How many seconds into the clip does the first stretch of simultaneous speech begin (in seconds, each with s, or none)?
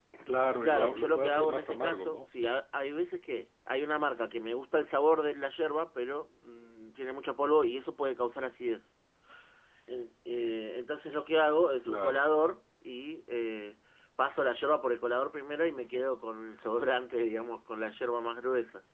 0.6 s